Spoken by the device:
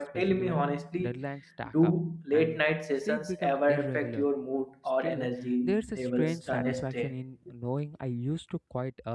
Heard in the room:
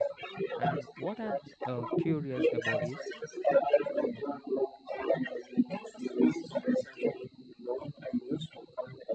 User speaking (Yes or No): Yes